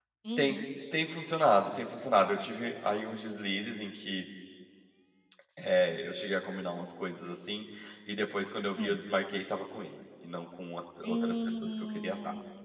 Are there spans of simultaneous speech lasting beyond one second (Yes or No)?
Yes